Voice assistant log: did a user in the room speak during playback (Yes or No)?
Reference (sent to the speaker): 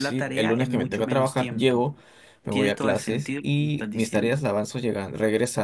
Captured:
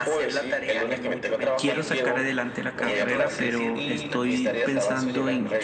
Yes